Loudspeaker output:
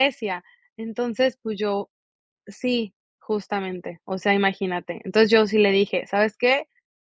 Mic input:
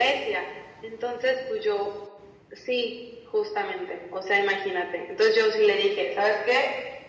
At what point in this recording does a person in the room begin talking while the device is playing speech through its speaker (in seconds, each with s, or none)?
none